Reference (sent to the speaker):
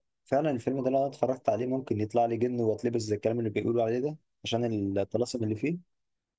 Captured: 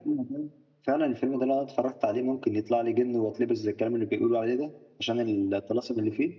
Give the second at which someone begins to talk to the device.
none

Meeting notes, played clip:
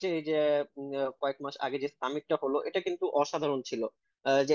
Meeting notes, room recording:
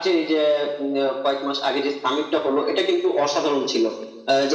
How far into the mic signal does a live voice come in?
none

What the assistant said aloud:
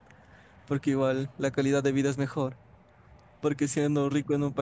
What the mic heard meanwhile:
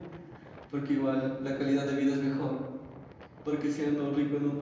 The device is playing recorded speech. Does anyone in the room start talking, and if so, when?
none

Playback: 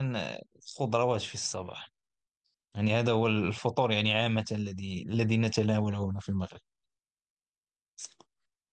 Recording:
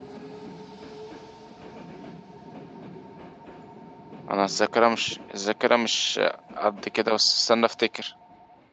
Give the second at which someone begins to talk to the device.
4 s

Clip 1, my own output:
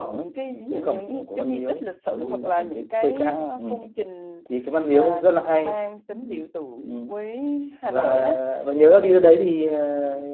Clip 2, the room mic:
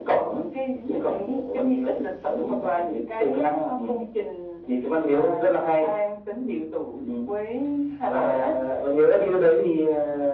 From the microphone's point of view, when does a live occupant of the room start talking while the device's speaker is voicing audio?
none

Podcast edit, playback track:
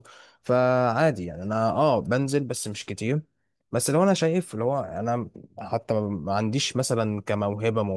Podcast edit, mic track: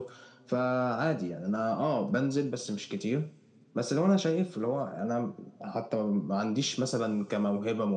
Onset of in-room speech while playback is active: none

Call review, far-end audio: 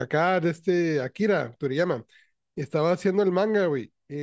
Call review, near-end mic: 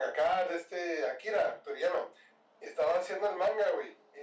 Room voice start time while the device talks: none

